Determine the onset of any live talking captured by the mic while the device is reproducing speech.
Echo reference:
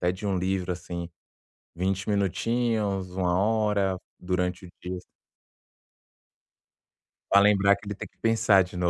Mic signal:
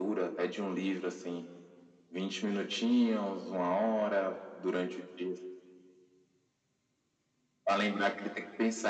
none

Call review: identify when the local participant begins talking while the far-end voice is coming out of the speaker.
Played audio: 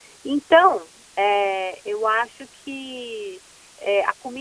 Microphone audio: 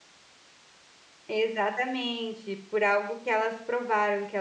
1.3 s

